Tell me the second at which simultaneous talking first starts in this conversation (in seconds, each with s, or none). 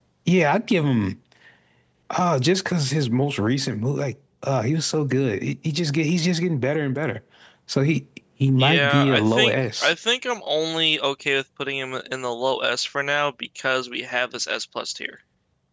8.6 s